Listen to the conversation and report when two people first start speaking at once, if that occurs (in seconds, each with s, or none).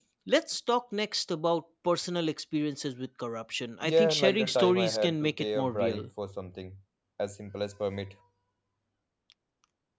3.8 s